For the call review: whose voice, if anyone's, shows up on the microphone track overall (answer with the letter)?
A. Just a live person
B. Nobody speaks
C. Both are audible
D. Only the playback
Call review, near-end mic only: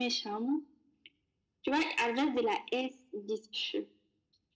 D